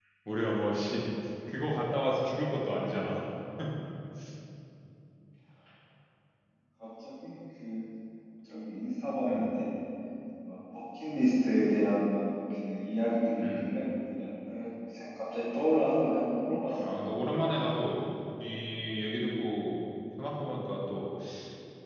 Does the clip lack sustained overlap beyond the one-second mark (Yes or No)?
Yes